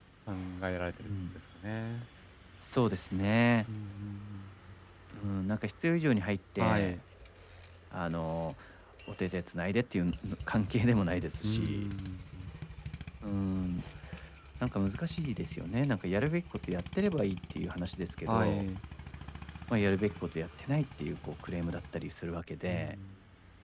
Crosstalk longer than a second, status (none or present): none